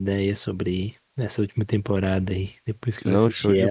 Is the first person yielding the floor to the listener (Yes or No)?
Yes